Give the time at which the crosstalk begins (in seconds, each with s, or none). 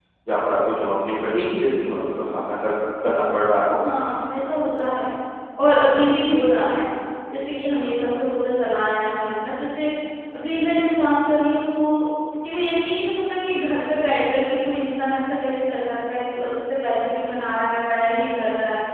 none